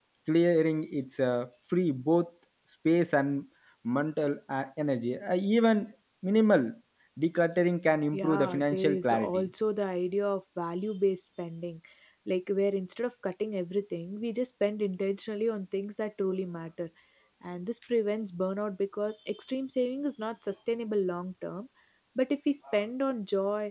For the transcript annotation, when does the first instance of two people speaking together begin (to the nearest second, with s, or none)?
8 s